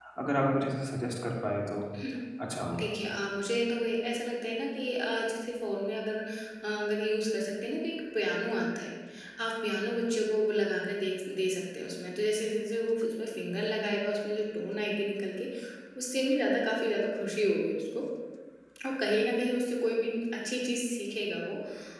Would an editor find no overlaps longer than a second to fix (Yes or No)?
Yes